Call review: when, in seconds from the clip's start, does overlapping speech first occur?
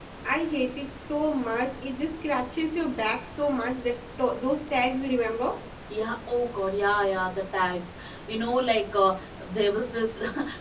none

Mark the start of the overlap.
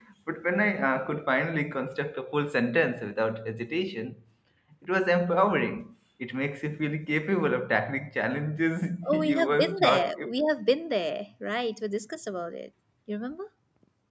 9 s

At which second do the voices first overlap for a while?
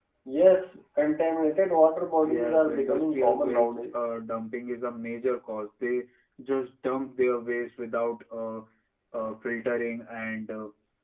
2 s

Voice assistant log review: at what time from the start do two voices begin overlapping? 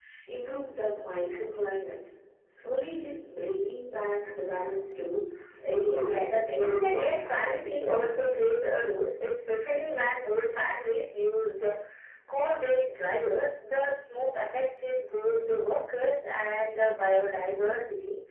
6 s

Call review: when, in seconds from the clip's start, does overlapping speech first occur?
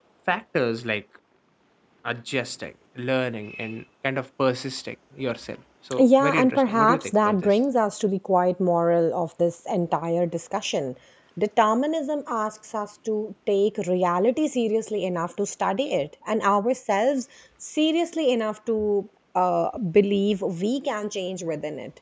6 s

